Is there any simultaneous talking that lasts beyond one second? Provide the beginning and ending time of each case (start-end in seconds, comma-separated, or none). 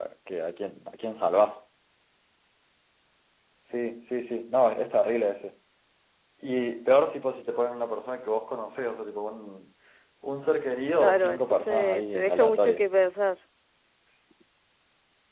11.0-12.8